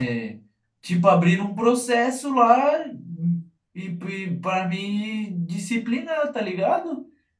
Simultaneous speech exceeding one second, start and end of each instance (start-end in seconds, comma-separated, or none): none